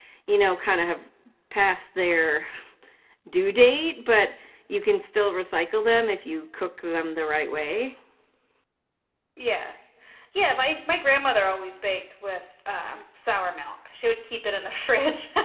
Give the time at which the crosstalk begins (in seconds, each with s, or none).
none